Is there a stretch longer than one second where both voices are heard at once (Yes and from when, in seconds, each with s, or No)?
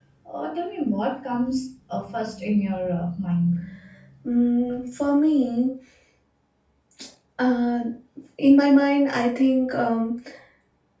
No